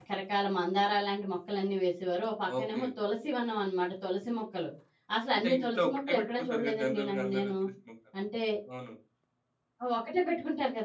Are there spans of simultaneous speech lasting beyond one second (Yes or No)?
Yes